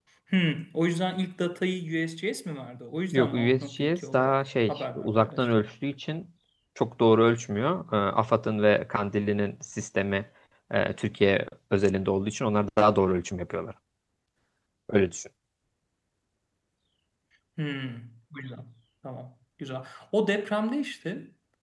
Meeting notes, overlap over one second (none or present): present